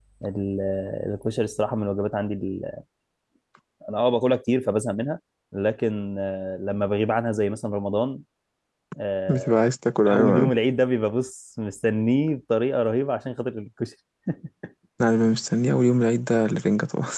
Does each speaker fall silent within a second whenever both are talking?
Yes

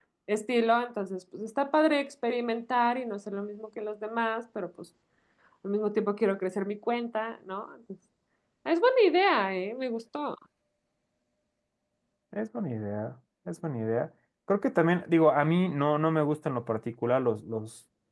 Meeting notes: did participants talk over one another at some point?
No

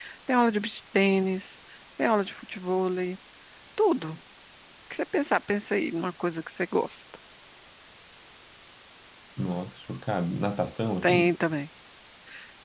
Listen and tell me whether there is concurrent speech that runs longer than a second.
No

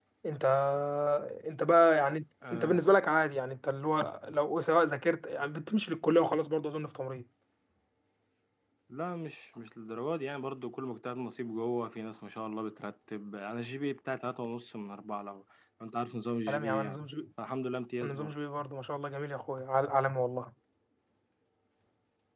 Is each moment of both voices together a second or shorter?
Yes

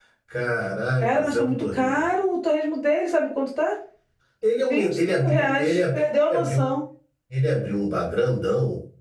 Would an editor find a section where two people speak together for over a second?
Yes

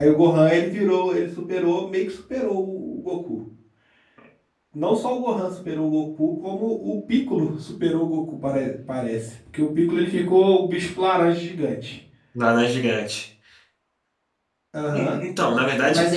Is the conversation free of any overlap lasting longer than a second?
Yes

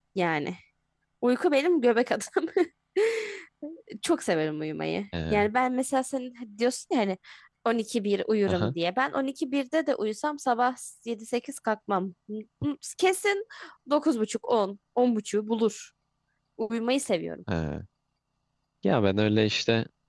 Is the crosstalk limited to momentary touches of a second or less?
Yes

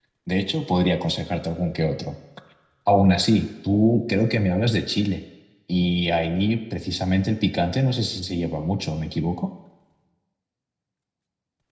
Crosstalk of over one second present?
No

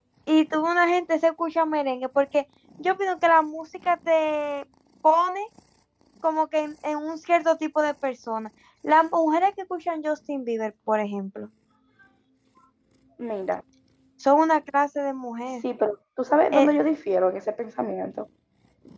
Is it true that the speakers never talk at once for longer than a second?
Yes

